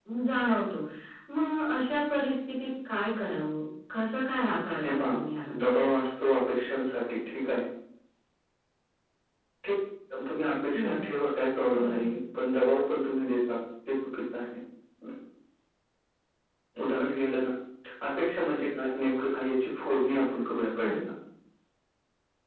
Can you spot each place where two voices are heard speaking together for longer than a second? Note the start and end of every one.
none

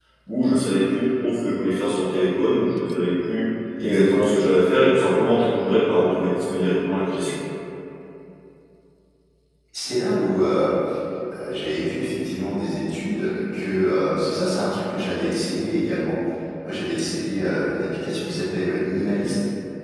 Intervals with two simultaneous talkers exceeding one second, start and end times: none

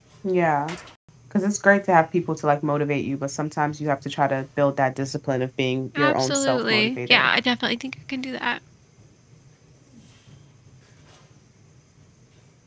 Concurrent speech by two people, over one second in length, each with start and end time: 6.0-7.3

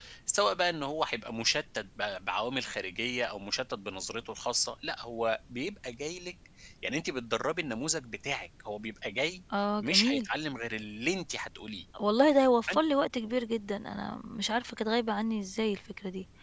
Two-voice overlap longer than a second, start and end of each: none

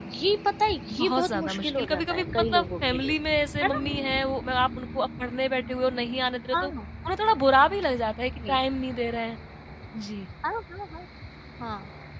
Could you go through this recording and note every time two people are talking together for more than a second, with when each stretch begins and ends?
0.9-3.1

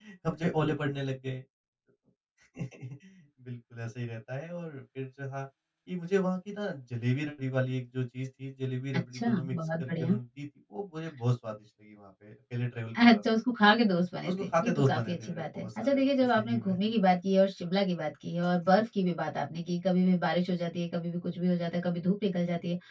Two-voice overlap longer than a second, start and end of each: 8.9-10.2, 14.2-16.8

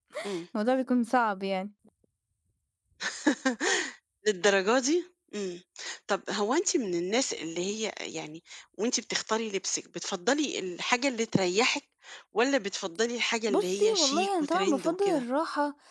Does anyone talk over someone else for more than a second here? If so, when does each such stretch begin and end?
13.5-15.2

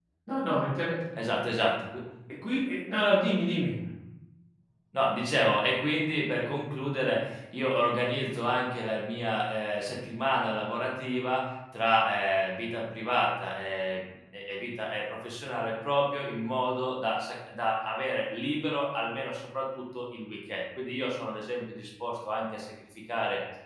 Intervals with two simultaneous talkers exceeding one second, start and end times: none

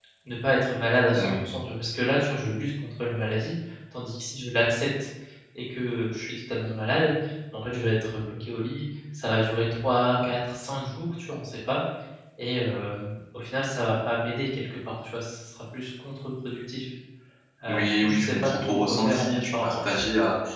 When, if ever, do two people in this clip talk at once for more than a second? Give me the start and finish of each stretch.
17.7-20.0

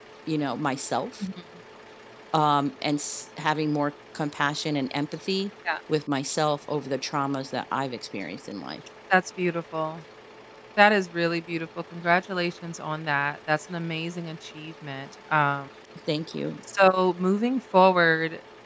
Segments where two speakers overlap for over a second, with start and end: none

